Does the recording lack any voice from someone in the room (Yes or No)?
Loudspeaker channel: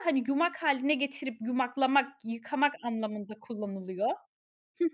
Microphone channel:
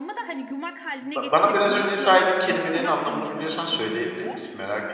No